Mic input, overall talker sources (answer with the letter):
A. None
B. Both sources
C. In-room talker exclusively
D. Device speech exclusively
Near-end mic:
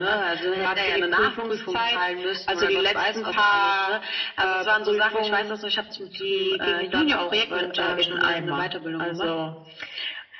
D